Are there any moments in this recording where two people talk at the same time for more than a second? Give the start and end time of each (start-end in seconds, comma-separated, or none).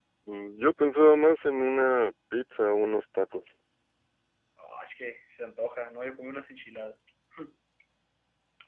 none